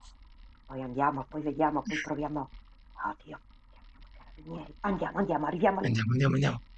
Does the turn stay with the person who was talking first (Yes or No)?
No